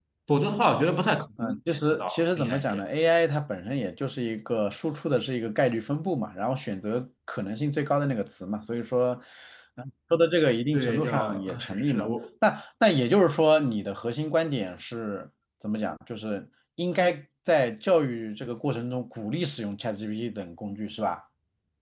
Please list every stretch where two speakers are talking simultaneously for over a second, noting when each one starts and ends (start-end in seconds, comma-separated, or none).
1.4-2.8, 10.7-12.1